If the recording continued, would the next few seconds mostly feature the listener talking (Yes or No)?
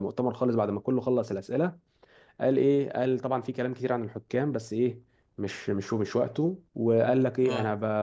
No